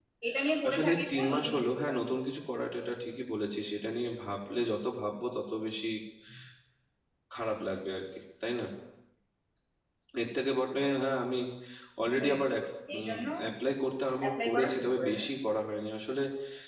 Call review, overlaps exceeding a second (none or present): present